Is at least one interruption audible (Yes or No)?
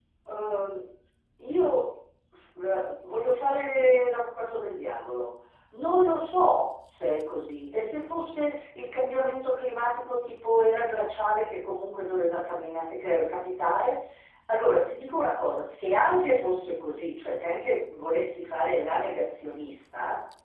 No